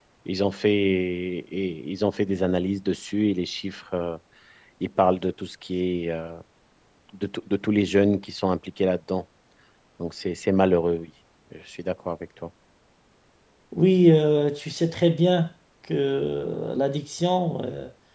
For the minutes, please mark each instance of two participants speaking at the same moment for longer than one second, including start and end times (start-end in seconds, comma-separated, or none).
none